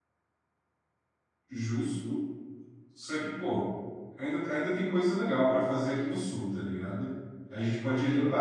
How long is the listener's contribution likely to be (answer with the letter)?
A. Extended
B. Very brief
B